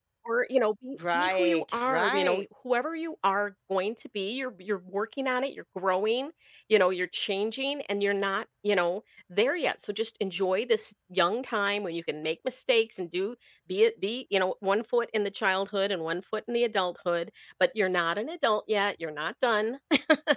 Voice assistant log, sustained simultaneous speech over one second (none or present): present